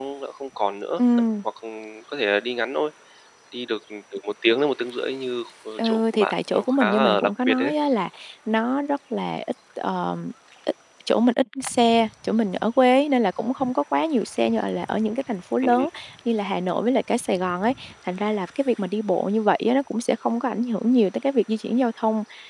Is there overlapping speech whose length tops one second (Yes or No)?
Yes